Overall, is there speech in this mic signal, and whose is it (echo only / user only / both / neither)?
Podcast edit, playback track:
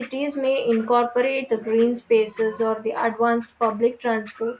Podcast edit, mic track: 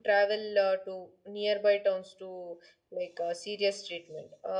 user only